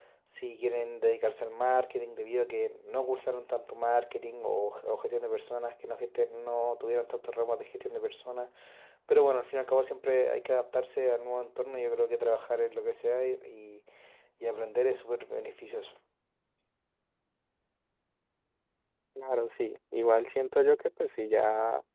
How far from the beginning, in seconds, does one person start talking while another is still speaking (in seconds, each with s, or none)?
none